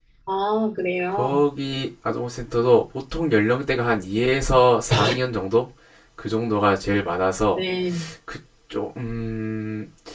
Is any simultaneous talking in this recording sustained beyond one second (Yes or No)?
No